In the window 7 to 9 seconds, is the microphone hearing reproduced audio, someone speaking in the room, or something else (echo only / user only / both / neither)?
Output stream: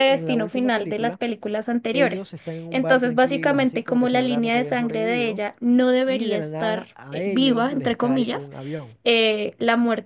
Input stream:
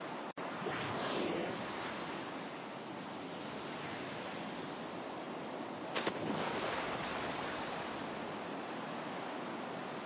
neither